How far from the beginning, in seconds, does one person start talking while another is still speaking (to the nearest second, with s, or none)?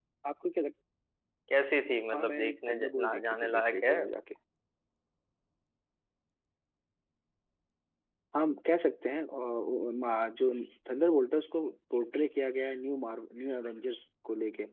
2 s